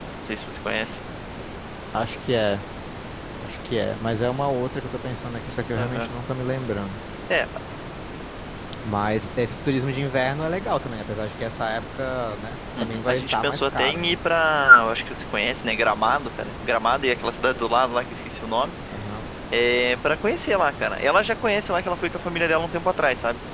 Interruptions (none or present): present